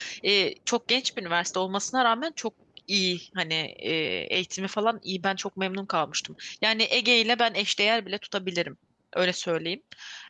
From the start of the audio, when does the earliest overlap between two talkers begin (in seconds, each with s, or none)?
none